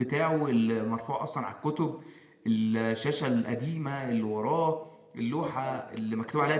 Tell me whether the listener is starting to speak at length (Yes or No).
Yes